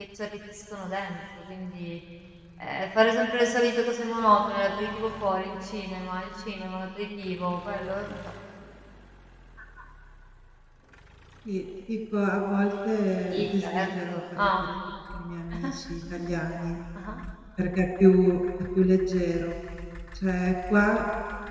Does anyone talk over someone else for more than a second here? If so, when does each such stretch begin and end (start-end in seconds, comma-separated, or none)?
13.3-14.6